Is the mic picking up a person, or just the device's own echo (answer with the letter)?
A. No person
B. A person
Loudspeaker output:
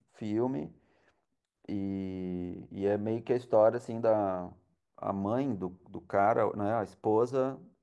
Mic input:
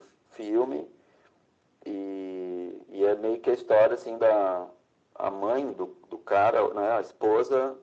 A